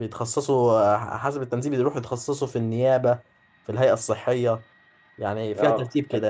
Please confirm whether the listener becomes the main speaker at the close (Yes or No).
Yes